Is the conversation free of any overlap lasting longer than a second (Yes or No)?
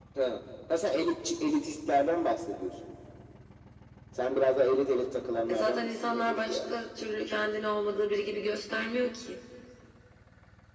No